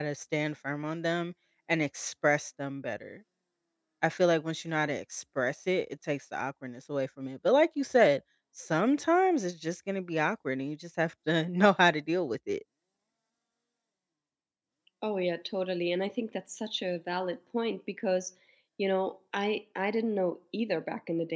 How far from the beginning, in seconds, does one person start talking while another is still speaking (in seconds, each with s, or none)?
none